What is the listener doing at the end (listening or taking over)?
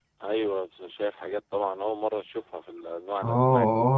taking over